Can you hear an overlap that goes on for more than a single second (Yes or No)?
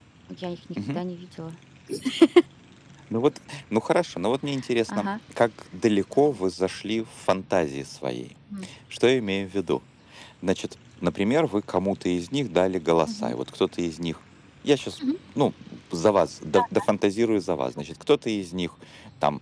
No